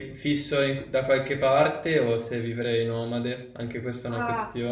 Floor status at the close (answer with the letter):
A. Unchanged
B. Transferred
B